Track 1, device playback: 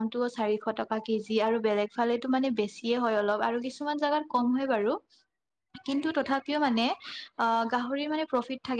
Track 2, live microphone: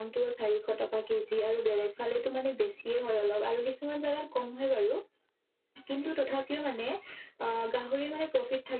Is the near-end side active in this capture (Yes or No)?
No